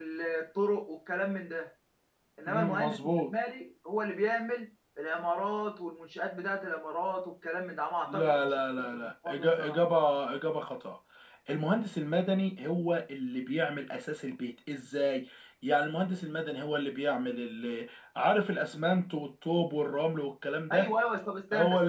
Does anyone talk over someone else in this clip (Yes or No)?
Yes